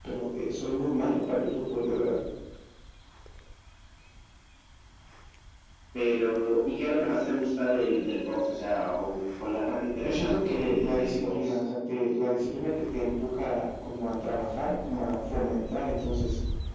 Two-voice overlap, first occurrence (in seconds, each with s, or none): 10.0 s